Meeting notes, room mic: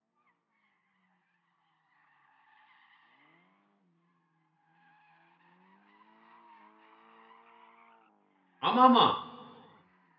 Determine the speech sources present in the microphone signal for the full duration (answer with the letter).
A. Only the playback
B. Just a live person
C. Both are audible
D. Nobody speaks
B